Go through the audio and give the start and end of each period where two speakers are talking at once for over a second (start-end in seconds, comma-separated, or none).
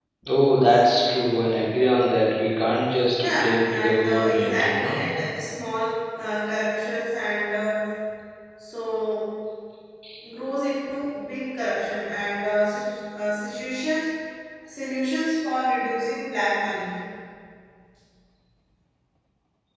3.2-5.0